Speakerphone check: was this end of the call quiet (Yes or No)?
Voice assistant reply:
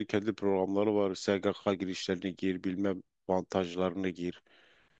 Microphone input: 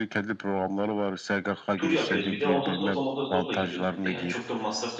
No